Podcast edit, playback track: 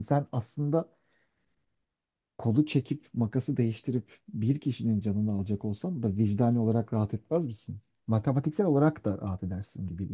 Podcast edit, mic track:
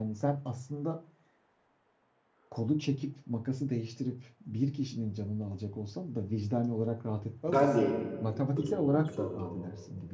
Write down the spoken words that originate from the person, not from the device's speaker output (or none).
Ben değilim ölümünden sorumlu olan.